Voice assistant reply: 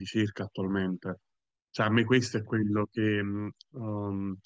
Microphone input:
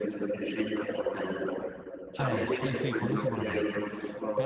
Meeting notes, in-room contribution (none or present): present